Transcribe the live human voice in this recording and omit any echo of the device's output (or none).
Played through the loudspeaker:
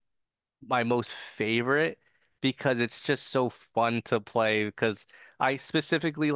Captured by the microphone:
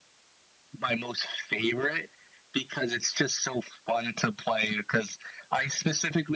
none